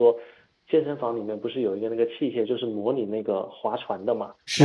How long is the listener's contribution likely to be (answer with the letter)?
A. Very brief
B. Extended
B